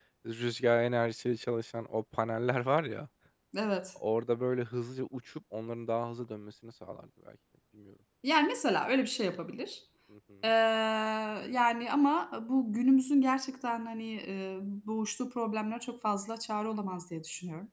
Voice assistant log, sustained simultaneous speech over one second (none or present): none